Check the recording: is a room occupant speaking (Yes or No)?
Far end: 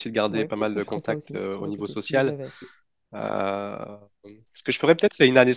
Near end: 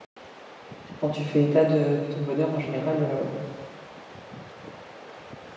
Yes